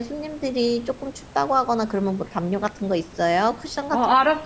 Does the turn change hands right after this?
Yes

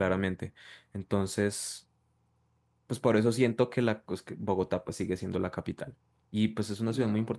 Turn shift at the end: No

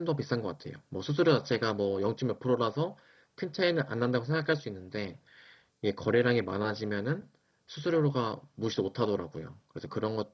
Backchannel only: Yes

